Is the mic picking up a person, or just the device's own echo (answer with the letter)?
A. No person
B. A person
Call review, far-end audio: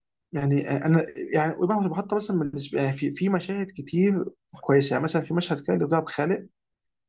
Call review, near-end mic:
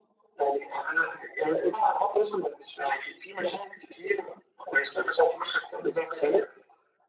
A